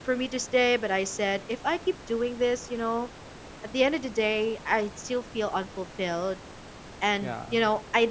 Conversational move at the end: listening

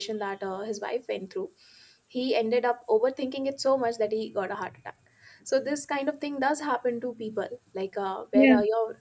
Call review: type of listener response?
listening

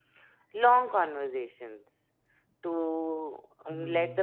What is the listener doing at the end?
listening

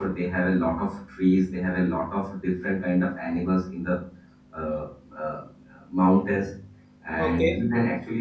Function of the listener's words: listening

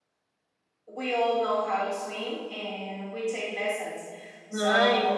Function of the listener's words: listening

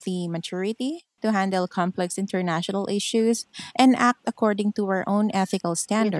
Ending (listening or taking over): taking over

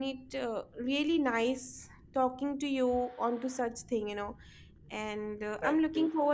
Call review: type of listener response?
listening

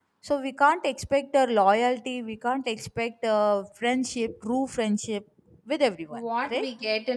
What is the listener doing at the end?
taking over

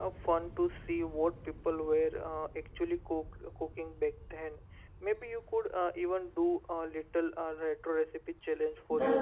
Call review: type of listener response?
taking over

